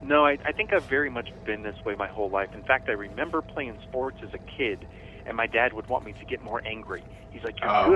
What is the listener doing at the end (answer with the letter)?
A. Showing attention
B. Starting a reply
A